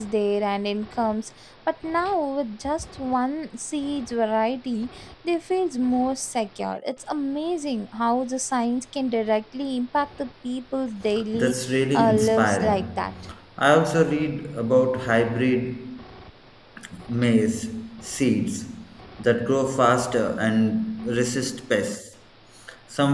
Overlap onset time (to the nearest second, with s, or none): 11 s